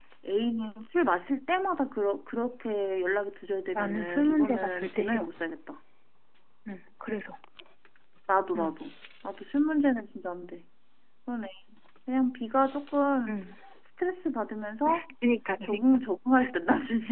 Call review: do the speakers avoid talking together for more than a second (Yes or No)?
No